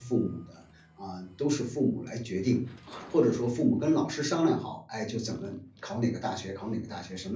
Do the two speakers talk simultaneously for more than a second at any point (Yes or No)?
No